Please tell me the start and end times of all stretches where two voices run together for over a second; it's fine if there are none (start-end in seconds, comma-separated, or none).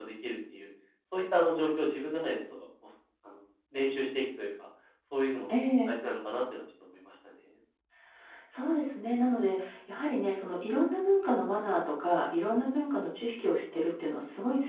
none